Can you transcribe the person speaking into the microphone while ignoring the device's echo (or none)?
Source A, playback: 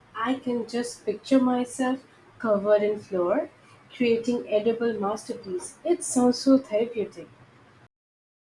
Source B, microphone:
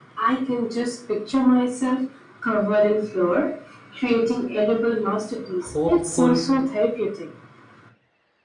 hopeful